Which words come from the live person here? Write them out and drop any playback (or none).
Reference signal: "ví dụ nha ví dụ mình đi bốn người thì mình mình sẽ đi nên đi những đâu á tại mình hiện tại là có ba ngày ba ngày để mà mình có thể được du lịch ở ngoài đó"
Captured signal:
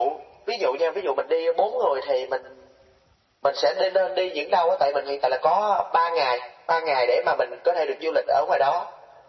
none